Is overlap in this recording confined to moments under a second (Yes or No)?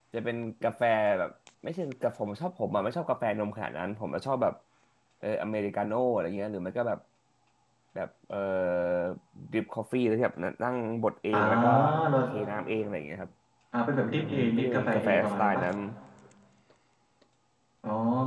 No